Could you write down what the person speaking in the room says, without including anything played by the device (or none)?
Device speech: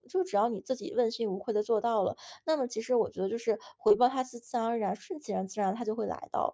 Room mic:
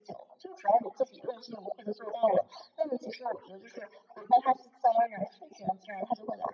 none